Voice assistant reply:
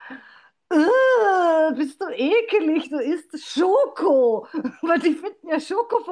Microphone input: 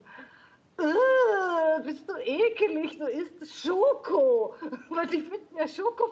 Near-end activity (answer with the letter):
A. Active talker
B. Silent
B